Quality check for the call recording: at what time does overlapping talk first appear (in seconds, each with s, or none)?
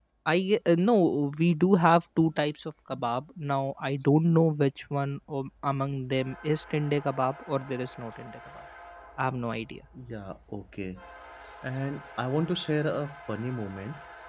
none